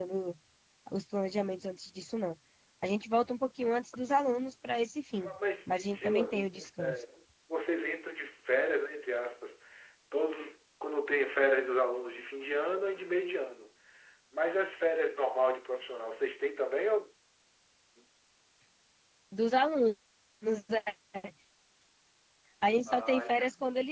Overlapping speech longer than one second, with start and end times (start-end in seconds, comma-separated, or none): 5.7-6.9